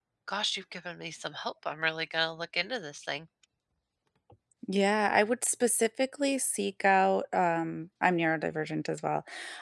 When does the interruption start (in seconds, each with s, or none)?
none